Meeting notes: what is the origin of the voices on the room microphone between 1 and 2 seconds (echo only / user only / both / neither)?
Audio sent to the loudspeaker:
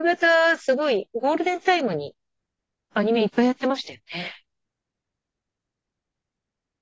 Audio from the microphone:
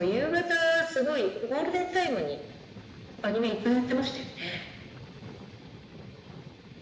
echo only